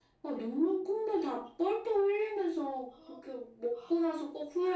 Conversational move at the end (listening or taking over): listening